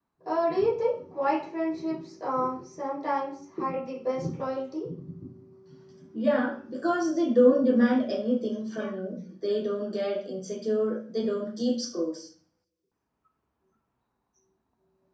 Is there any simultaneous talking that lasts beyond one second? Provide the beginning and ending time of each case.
none

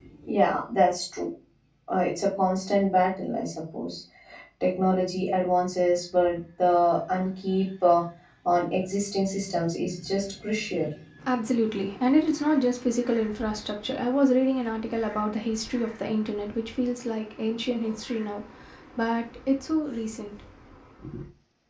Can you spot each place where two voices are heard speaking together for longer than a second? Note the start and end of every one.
none

